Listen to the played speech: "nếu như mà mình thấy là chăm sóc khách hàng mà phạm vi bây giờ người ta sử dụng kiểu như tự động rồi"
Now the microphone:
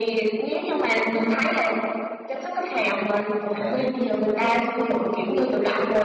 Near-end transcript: đấy thế thế thế

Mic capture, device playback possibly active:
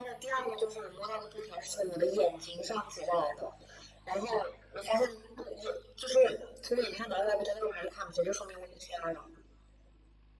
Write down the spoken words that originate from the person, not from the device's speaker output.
none

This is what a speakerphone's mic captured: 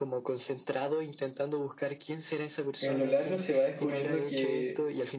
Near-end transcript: en lo largo se va descubriendo que

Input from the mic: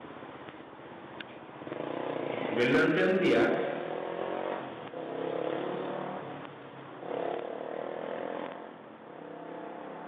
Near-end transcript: y si bien lo entendía,

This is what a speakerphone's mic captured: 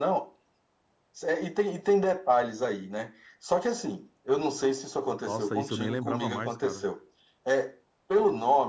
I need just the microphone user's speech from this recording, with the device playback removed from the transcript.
Nossa, isso eu nem lembrava mais, cara.

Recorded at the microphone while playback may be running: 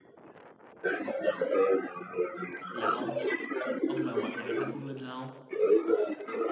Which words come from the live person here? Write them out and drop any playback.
Là ông ông về Quảng Ngãi thăm Phương Linh hả không?

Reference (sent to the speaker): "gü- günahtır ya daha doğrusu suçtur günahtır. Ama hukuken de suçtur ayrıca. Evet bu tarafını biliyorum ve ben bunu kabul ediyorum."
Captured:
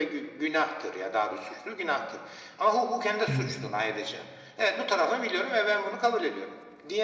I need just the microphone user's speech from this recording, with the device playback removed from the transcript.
İyi.

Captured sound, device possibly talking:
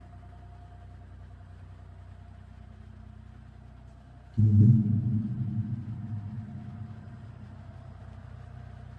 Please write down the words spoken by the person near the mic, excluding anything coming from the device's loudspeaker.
hı.

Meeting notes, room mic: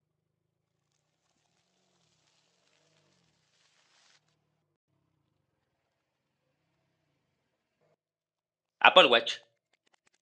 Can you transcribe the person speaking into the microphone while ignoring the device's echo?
Apple Watch.

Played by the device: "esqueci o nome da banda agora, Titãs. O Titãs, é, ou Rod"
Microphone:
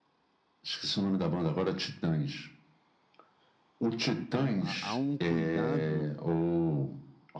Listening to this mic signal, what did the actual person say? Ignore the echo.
Então, há, há um cuidado

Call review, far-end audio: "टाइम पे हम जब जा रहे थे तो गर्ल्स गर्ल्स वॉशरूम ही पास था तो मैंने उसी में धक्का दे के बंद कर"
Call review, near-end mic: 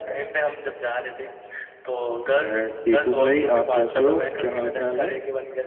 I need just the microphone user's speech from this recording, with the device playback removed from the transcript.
मैं ठीक हूँ भाई आप कैसे हो क्या हाल चाल है

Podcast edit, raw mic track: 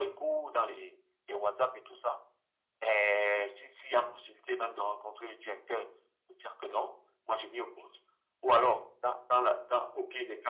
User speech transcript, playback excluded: none

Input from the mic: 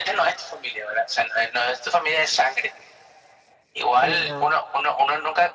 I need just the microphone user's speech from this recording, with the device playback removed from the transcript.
Sí, no,

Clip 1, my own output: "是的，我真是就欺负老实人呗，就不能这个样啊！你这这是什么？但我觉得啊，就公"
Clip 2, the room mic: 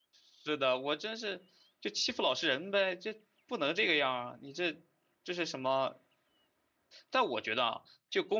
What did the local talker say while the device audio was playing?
none

